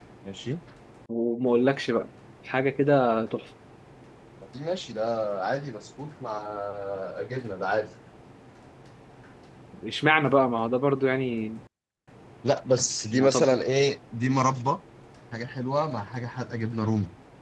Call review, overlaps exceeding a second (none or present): none